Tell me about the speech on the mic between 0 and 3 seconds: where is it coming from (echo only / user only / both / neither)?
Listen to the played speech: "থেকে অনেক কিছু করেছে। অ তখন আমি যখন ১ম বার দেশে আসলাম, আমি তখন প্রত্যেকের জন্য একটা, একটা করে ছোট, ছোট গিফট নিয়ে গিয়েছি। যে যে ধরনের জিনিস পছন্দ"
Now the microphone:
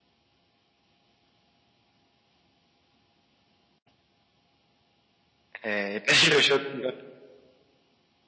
neither